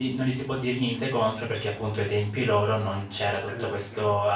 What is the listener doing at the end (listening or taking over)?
listening